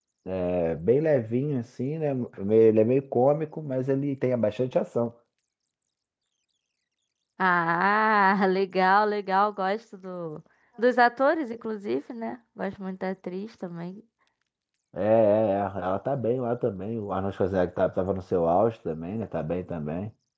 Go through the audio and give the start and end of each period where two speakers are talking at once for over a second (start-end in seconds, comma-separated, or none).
none